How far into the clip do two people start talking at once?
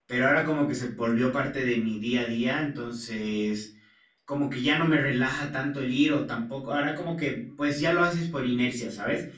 none

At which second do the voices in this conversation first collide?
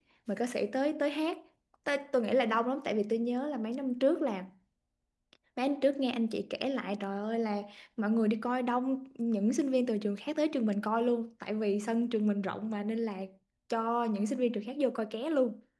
none

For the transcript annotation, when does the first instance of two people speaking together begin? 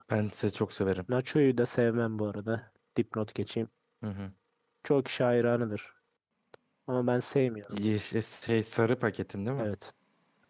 none

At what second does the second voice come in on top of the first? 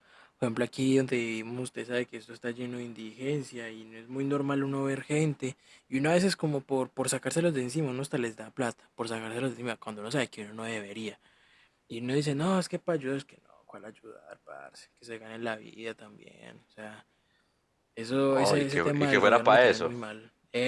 18.3 s

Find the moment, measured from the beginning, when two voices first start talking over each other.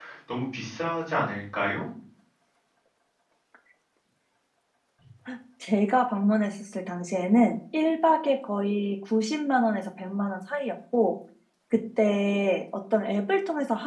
none

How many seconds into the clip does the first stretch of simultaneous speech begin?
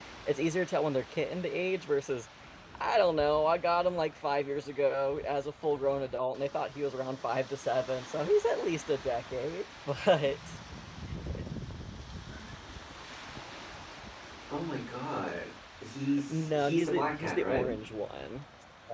16.3 s

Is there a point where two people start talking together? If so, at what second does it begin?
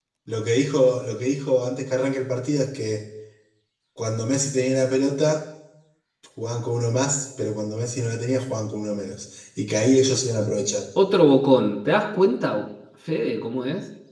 none

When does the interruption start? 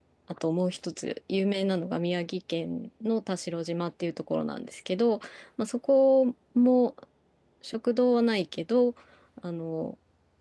none

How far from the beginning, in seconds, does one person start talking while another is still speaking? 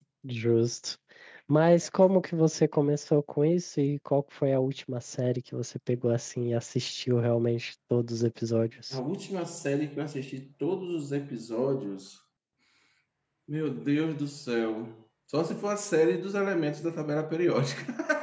none

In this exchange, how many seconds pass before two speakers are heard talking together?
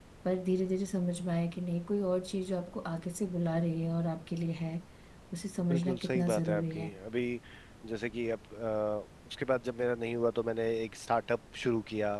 5.7 s

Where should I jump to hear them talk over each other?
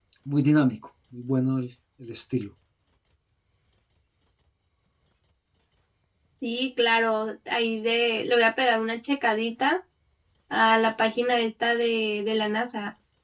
none

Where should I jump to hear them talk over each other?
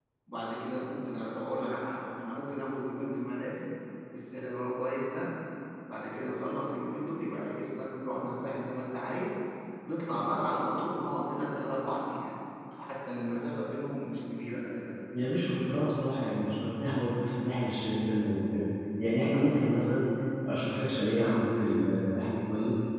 none

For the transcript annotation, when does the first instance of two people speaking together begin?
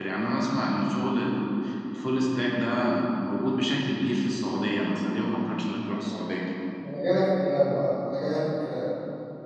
none

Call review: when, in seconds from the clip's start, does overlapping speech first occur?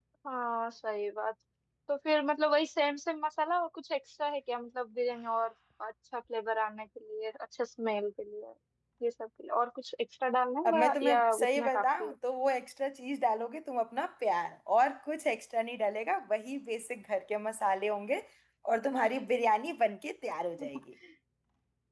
10.6 s

